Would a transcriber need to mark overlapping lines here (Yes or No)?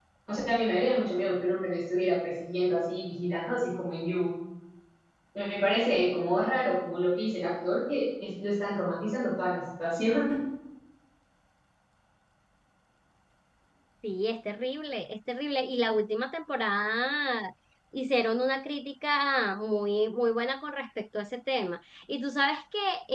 No